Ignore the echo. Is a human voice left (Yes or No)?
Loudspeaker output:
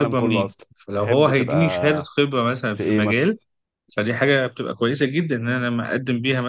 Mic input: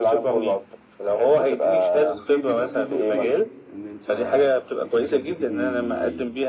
Yes